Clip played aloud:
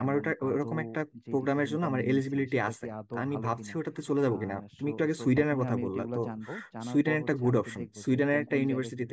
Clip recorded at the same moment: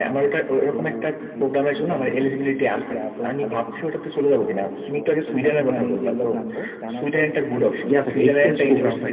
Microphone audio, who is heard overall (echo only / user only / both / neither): both